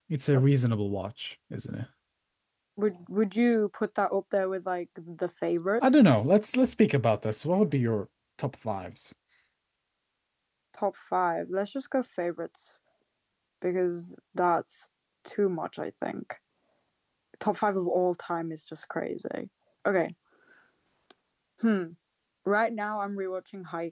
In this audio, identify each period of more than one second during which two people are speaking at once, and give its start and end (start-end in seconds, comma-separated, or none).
none